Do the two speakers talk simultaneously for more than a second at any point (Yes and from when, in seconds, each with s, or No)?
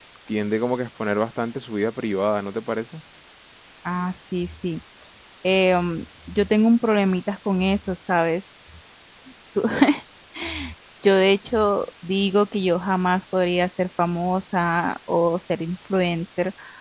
No